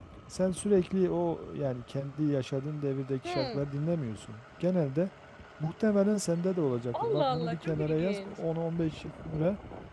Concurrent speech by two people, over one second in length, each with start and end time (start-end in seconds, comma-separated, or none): 6.9-8.4